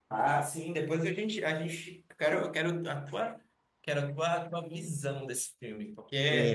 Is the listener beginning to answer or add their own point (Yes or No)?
Yes